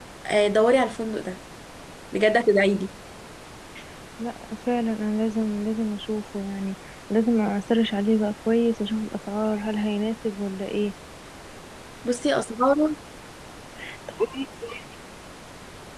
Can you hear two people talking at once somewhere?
No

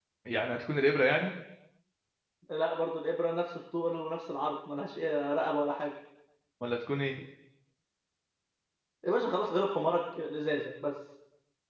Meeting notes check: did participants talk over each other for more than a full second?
No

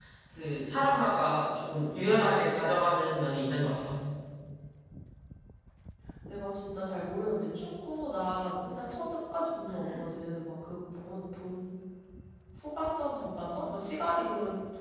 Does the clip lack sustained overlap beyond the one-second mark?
Yes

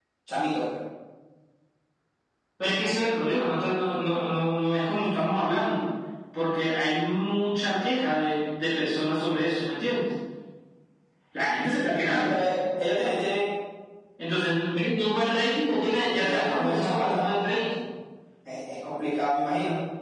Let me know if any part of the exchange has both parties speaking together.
Yes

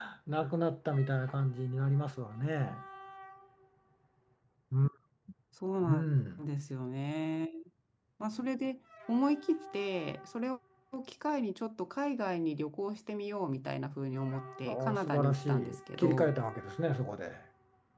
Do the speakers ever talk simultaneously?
Yes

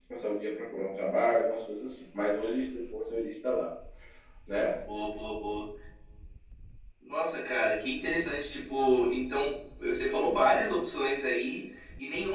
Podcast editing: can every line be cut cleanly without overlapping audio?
Yes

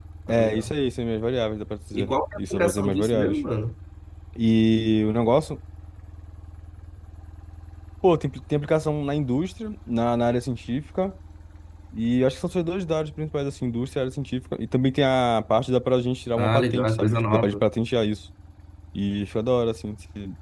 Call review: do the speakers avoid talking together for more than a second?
No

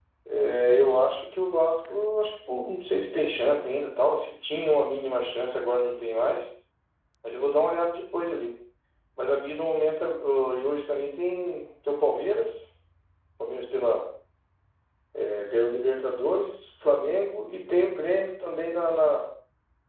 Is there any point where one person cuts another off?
No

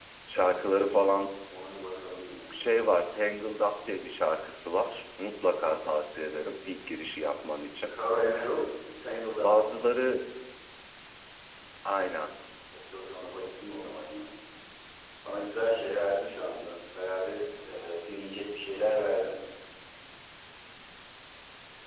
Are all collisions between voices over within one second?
Yes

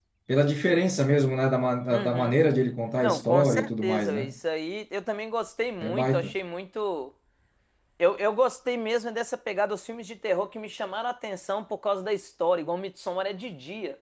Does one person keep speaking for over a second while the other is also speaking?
Yes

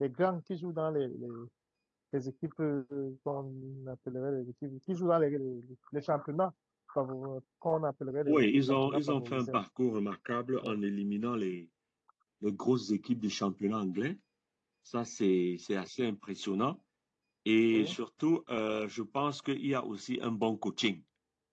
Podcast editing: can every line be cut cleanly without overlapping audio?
No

